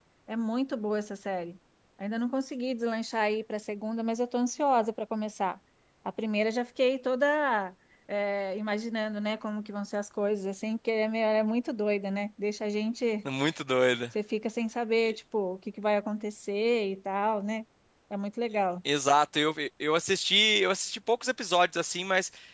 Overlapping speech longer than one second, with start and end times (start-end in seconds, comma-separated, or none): none